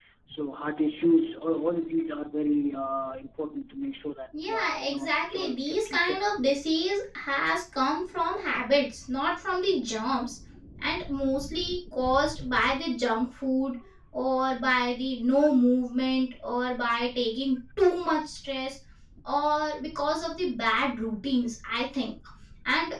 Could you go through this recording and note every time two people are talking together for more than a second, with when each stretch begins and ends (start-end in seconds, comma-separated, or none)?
4.4-6.2